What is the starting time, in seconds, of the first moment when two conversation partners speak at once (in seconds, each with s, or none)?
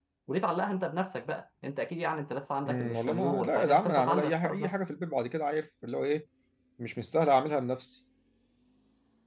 2.7 s